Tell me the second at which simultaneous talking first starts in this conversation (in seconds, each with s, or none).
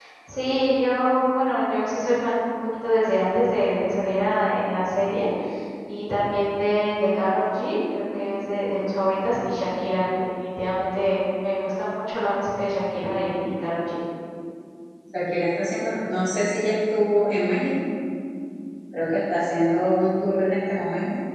none